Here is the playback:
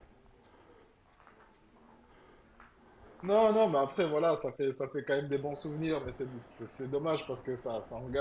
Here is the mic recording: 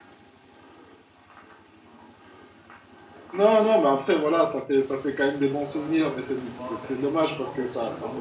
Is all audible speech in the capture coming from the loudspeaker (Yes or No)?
No